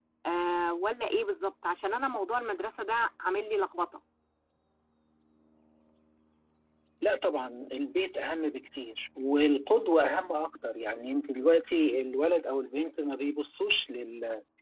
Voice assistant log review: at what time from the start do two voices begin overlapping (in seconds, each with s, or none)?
none